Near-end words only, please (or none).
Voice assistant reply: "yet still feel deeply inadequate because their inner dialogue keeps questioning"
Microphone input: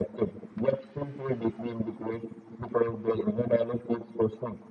none